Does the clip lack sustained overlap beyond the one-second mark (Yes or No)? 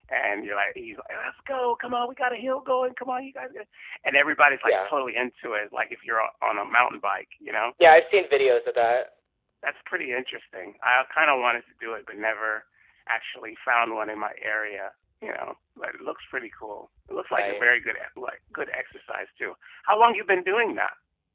Yes